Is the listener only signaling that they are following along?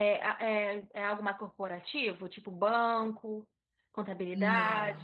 No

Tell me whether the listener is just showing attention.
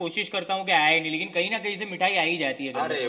No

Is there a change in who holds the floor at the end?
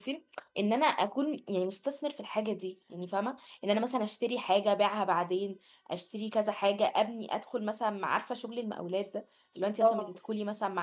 No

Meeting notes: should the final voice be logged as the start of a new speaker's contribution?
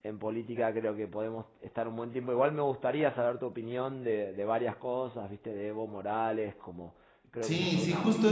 Yes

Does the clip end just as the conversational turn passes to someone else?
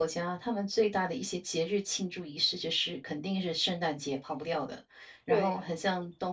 No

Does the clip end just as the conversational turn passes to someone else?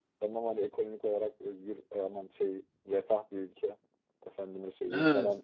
No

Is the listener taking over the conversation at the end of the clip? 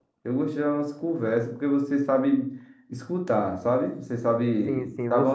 Yes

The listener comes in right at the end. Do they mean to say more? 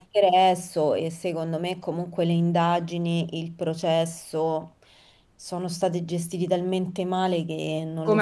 Yes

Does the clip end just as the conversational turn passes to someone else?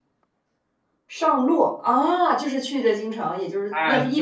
Yes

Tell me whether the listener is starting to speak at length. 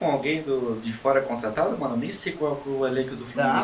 Yes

